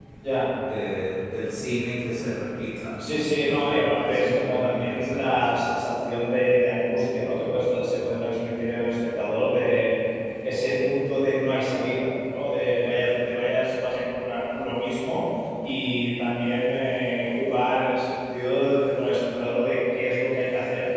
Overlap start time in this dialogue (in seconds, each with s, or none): 3.0 s